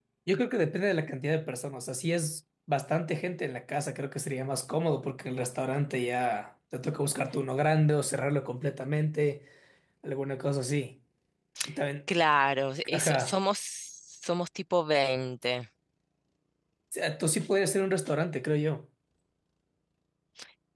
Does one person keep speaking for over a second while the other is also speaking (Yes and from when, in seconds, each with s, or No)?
No